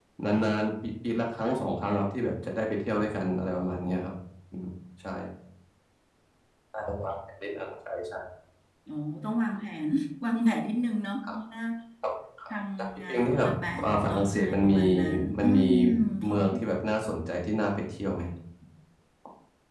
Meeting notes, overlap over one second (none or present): present